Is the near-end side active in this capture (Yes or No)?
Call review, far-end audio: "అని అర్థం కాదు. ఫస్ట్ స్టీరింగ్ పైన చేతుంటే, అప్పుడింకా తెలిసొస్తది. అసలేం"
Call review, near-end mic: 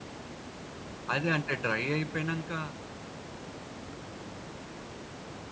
Yes